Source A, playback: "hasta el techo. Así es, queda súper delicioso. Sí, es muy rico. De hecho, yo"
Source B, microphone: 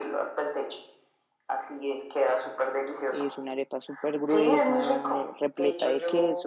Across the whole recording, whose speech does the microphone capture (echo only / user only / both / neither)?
both